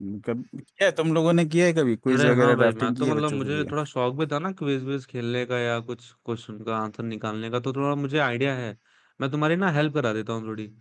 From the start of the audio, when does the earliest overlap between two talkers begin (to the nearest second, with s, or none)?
2 s